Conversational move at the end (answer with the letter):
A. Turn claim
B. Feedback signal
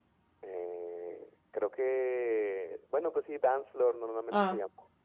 A